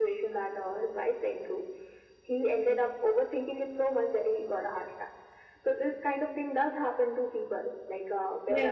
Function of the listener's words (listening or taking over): listening